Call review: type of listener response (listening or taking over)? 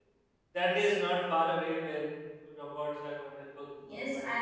taking over